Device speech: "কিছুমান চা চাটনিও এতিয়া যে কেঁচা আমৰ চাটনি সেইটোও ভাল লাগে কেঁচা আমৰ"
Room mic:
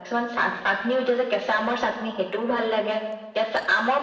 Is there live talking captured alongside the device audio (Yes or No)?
No